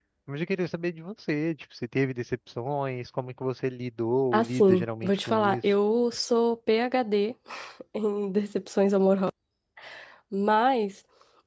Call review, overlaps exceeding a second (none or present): present